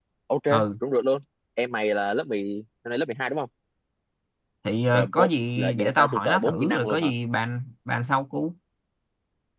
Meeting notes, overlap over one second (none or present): present